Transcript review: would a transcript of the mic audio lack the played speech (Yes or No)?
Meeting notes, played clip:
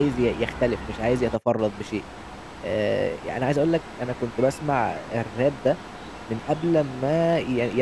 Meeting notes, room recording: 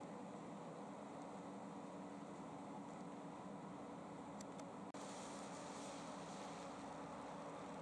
Yes